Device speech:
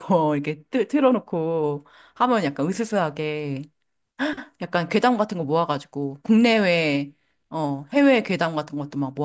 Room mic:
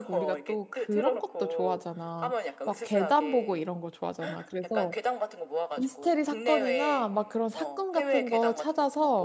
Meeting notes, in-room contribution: present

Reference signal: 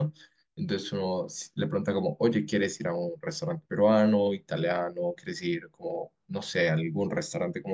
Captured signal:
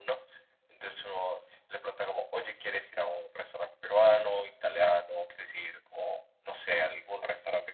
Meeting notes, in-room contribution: none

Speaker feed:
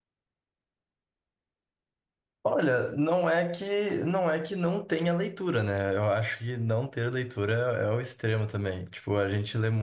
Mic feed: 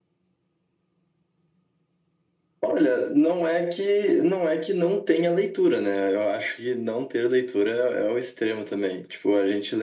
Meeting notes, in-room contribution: none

